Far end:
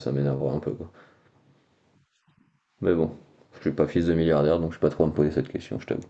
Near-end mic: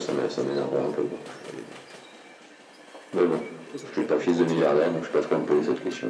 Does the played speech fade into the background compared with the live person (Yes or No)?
No